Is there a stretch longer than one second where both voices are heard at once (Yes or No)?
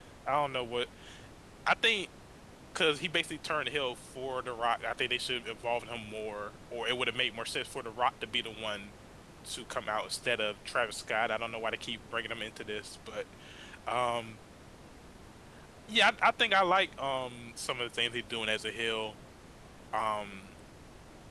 No